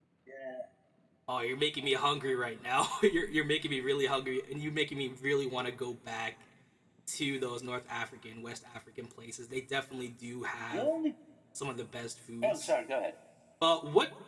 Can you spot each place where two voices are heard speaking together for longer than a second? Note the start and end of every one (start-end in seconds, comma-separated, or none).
none